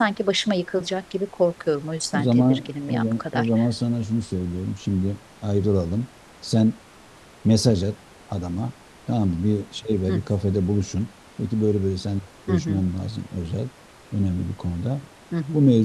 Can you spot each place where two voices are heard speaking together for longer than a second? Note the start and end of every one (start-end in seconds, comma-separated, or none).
2.1-3.5